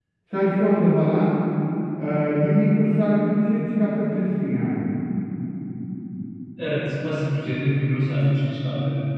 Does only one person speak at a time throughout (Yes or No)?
Yes